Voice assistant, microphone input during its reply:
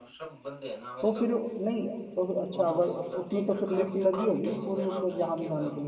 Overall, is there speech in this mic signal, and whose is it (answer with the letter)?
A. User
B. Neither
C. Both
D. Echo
C